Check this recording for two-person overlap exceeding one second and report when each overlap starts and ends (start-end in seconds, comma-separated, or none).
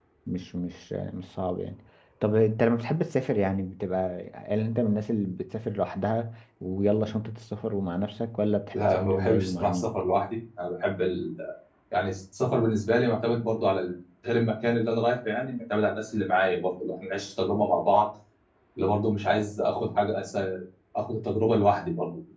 8.7-9.9